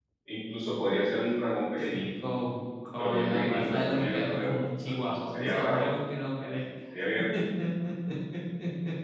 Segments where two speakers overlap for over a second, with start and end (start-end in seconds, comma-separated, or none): 3.0-5.9